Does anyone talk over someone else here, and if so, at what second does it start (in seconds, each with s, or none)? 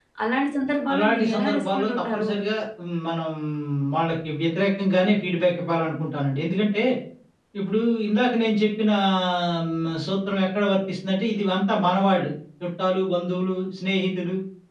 0.9 s